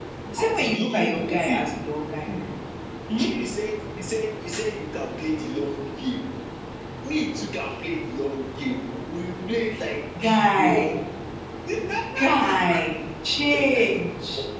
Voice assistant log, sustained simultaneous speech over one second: present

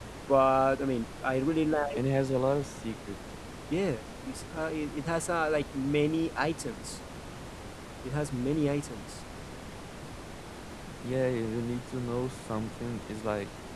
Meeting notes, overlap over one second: none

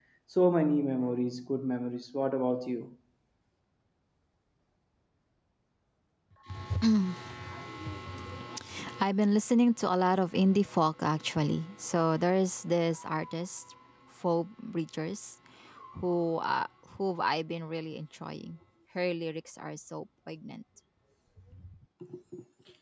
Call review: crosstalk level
none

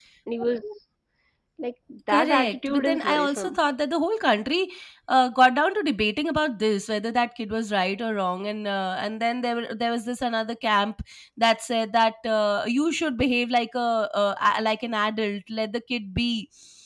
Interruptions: present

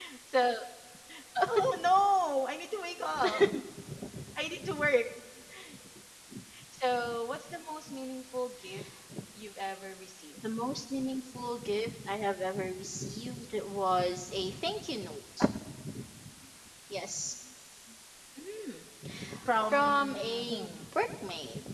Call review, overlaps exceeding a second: present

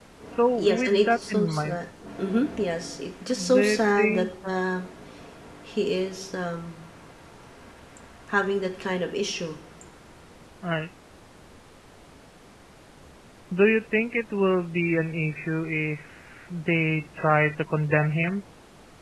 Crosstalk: present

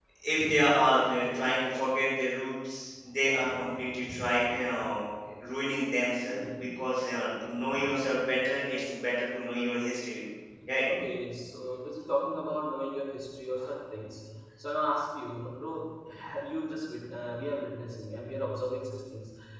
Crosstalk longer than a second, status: none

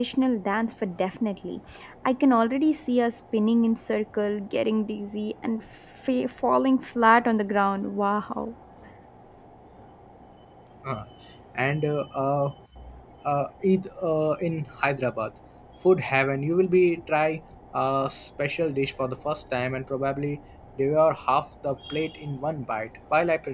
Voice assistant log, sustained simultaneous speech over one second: none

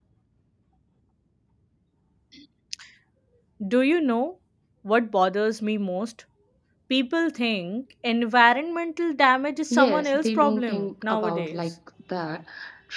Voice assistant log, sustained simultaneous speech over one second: present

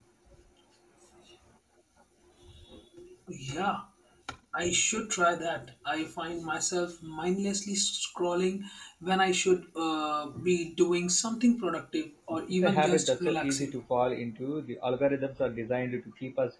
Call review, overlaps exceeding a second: present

